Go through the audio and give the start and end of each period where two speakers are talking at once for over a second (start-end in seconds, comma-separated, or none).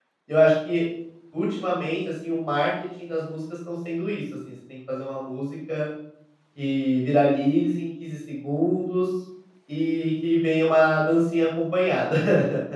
none